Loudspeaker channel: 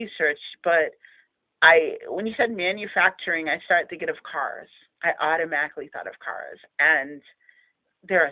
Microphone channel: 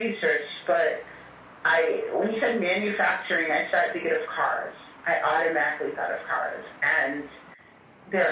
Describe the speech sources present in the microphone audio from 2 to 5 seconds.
echo only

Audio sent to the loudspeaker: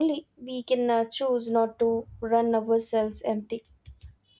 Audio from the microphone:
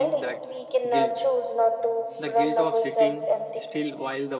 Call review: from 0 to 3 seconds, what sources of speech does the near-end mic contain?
both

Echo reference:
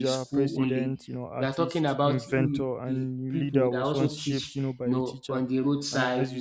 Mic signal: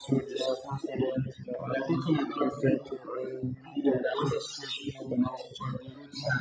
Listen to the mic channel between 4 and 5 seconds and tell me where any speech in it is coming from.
echo only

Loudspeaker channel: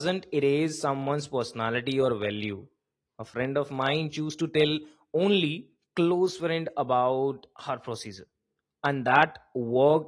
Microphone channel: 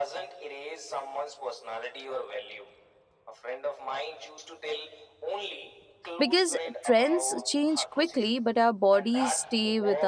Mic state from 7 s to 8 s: both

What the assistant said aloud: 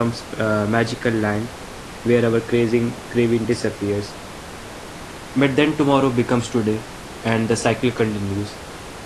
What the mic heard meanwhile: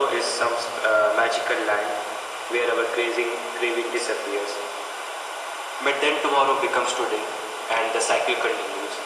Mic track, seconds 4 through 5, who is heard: echo only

